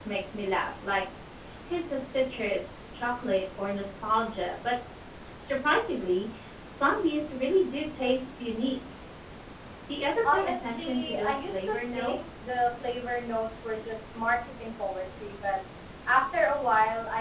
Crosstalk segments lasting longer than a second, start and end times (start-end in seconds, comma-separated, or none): 10.3-12.2